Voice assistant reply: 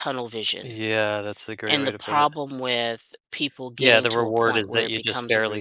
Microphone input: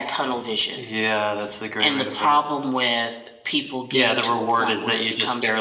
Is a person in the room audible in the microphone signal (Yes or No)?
No